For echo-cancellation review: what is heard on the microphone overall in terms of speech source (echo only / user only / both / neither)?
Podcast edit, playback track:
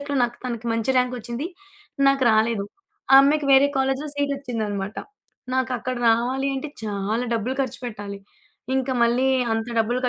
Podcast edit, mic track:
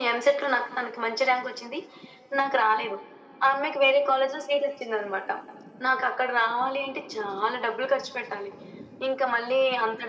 echo only